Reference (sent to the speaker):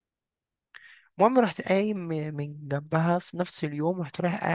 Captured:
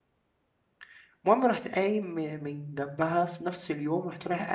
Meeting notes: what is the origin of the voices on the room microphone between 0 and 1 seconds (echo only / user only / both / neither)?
neither